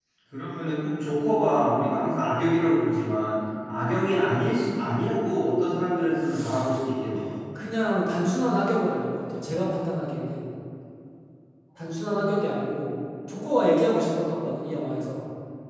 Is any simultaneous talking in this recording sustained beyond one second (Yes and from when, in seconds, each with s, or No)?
No